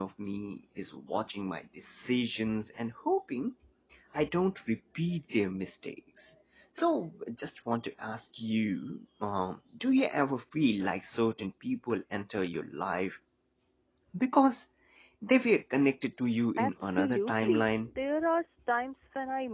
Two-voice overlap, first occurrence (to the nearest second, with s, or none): 17 s